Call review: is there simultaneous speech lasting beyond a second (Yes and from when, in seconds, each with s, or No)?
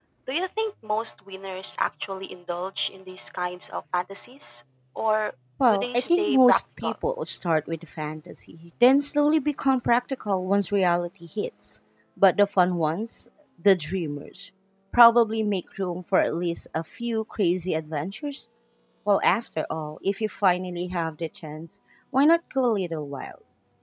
Yes, from 5.7 s